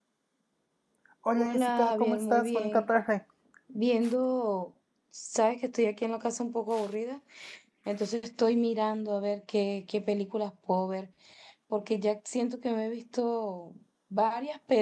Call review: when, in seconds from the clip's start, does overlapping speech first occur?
1.4 s

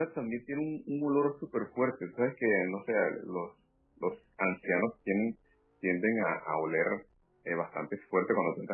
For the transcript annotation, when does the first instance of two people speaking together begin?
none

